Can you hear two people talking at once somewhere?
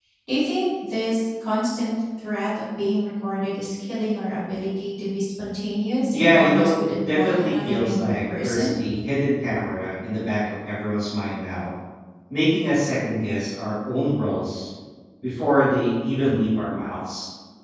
Yes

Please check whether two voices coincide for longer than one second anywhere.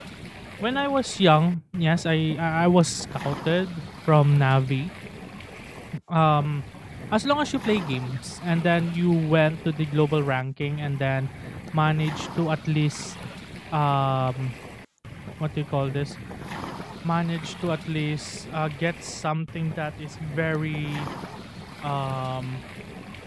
No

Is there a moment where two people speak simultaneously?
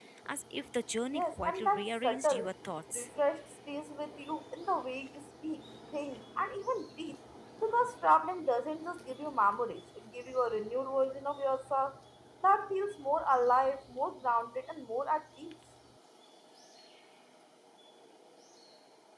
Yes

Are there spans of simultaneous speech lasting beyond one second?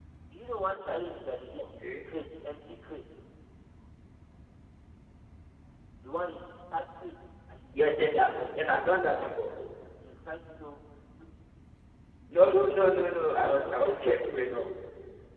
Yes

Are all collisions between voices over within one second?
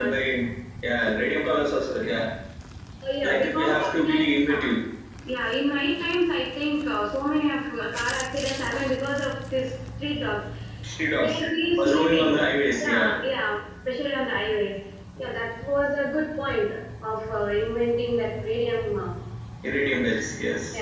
No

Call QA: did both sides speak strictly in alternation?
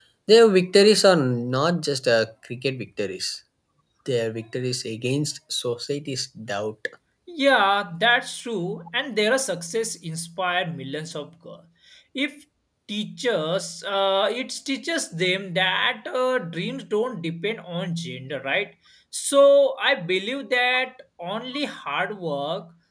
Yes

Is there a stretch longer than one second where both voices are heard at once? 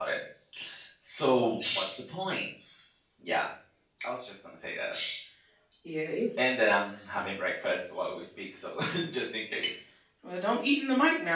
No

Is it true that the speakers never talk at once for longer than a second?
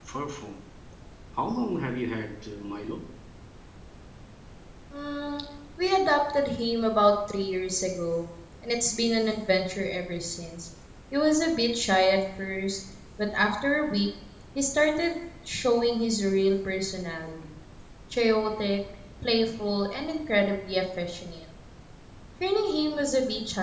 Yes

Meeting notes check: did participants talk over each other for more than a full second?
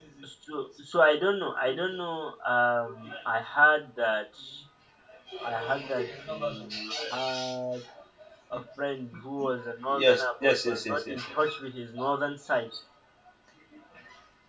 Yes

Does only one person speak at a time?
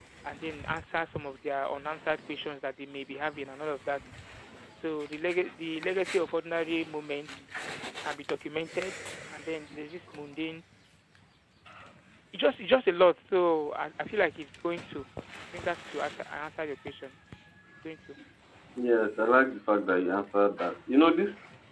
Yes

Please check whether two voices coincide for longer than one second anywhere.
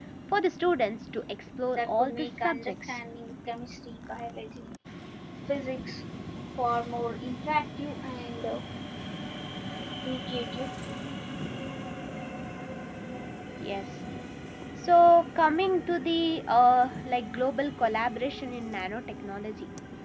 Yes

